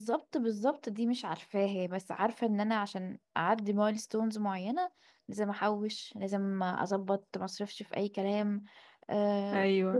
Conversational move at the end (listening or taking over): listening